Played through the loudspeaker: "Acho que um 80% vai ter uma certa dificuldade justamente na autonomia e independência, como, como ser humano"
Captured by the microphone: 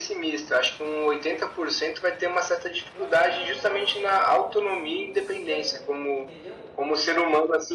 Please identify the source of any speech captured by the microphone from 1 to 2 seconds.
echo only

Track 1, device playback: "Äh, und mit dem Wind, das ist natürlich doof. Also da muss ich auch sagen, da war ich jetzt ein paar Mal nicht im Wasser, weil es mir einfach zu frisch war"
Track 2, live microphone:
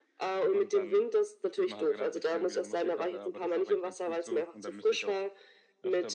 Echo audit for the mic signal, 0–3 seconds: both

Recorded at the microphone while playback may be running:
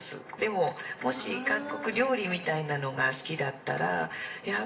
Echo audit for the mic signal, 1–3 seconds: both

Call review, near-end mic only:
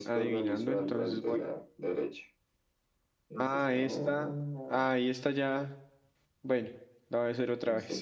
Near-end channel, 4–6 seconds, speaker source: both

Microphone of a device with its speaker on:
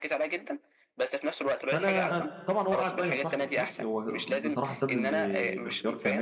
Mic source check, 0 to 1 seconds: echo only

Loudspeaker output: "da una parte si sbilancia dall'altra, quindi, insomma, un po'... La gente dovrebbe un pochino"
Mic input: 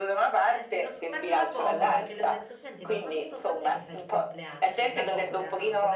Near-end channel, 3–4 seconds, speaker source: both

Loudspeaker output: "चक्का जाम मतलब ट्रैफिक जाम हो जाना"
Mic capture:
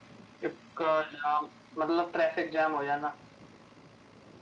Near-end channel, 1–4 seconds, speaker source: echo only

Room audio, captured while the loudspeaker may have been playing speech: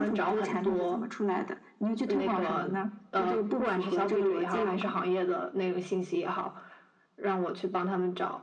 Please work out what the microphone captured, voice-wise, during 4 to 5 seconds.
echo only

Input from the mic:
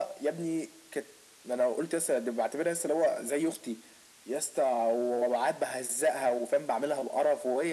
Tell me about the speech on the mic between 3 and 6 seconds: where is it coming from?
echo only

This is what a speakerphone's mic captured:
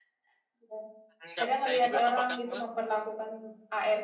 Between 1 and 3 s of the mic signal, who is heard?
both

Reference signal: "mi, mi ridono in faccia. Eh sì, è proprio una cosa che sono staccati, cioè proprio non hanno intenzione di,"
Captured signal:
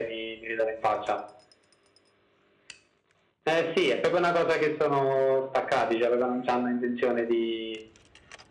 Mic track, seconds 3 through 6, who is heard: echo only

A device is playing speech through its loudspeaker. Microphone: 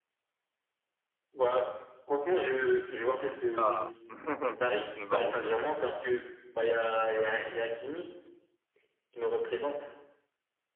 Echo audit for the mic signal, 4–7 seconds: both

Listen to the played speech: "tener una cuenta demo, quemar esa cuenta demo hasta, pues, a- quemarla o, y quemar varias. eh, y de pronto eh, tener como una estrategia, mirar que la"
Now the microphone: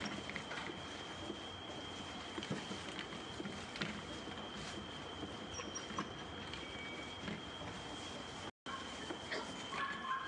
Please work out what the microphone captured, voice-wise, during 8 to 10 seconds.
neither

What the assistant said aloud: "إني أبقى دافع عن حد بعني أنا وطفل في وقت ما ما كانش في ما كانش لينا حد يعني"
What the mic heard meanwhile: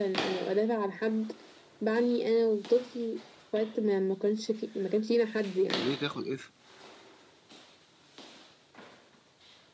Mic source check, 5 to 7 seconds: both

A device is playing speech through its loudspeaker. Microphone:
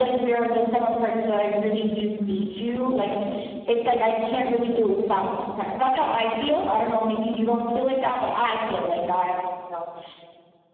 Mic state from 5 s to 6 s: echo only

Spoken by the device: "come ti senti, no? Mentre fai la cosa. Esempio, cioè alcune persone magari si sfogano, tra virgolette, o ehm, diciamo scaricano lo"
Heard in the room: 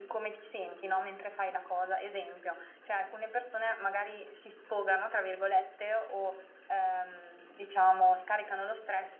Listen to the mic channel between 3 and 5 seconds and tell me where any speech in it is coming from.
echo only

